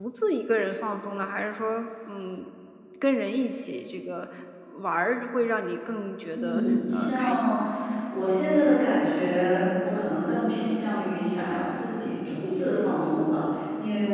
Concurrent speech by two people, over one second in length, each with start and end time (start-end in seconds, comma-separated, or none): 6.3-7.6